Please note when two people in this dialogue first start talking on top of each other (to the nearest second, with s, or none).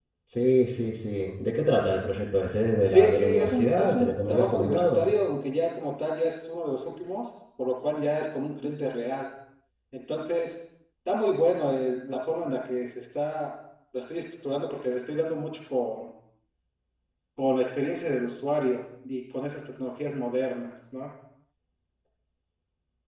3 s